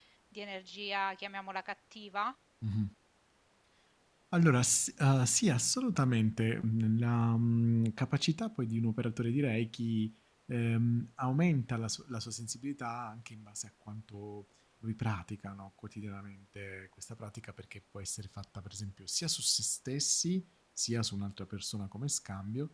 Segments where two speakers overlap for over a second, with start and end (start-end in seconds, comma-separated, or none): none